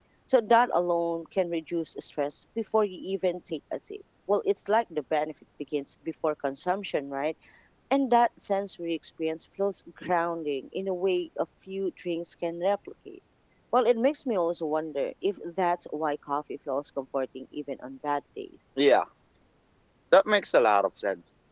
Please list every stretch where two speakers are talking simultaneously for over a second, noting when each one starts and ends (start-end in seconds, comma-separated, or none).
none